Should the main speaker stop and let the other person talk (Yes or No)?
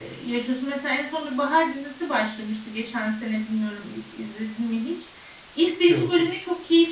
No